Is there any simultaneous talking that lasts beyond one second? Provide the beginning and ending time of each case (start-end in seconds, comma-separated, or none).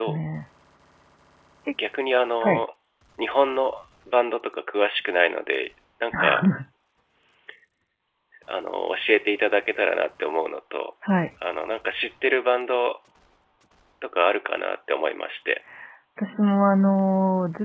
none